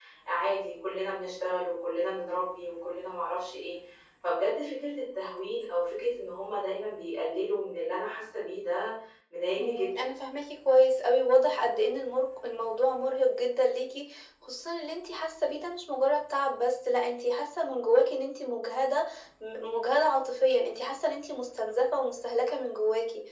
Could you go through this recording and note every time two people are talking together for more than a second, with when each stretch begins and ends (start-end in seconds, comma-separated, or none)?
none